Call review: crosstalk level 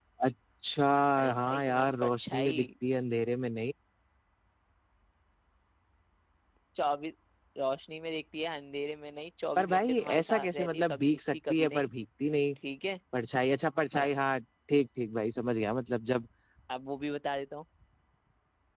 present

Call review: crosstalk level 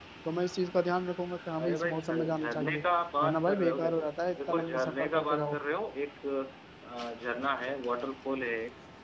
present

